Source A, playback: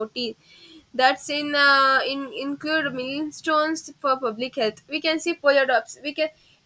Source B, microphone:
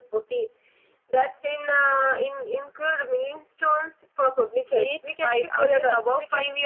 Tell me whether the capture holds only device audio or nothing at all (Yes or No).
No